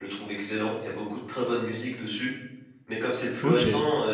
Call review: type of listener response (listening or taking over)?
listening